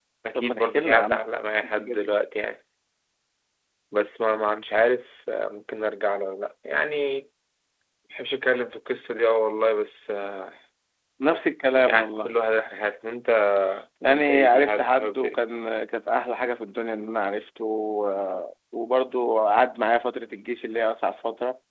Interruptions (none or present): present